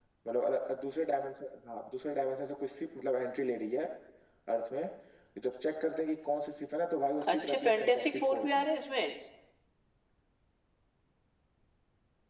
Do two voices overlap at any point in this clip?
Yes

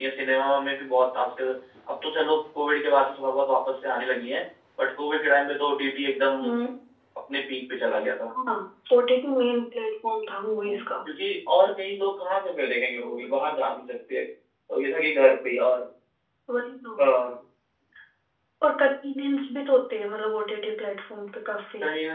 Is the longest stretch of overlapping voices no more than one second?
Yes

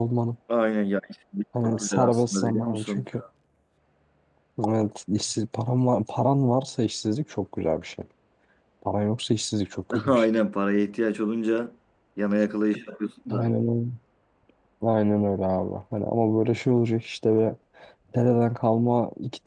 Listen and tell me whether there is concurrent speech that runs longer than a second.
Yes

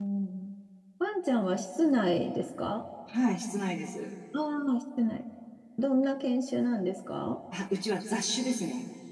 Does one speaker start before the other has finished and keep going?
No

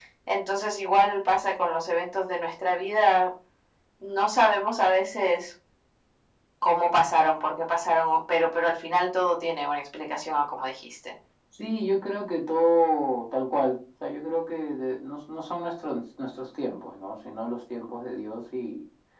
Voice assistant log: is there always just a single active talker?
Yes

